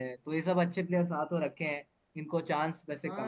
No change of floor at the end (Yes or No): No